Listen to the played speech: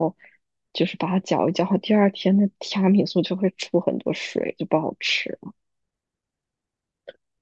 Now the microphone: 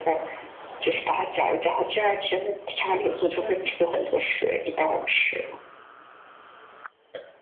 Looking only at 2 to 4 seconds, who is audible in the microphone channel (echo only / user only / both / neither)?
both